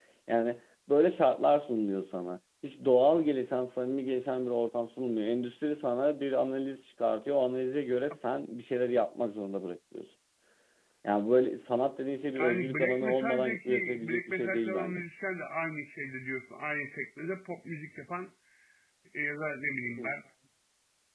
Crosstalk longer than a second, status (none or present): present